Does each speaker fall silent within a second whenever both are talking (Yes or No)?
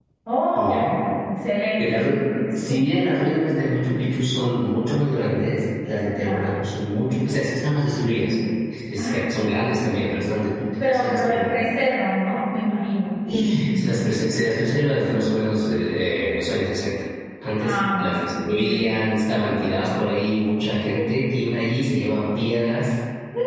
No